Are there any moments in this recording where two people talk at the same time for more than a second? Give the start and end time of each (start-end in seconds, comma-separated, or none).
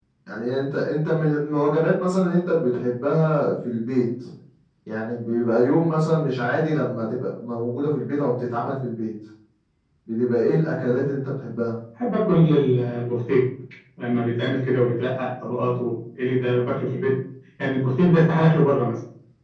none